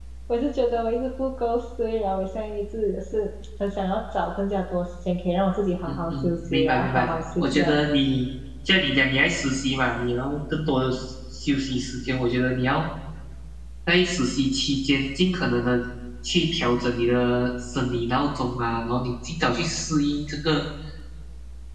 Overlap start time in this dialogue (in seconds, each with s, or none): 5.8 s